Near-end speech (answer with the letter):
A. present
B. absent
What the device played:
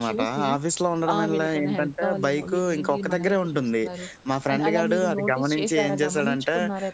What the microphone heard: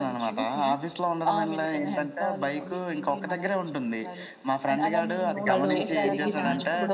A